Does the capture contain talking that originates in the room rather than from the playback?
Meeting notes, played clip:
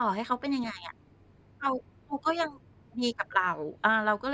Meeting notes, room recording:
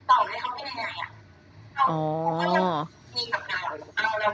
Yes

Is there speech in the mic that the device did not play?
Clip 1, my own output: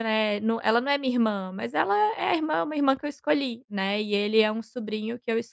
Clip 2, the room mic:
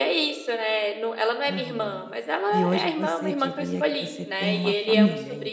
Yes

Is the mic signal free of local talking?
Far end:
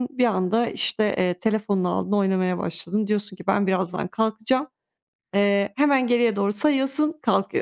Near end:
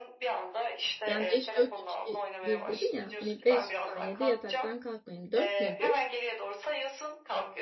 No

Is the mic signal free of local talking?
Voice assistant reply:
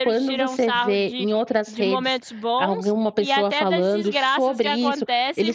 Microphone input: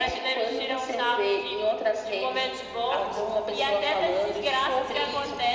Yes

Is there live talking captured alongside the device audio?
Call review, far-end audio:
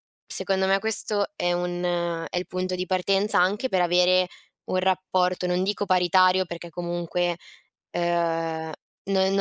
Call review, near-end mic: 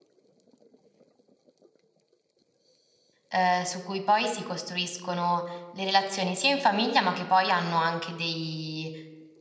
Yes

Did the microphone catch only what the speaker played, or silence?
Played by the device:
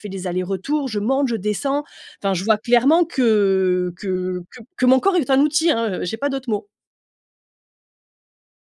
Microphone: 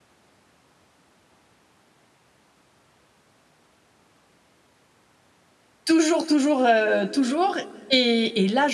No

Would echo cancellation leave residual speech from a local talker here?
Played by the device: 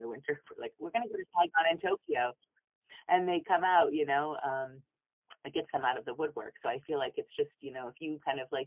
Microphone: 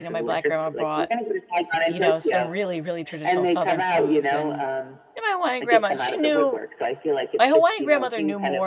Yes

